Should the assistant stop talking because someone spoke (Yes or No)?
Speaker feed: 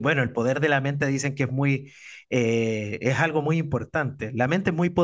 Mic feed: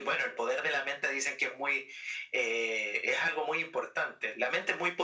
No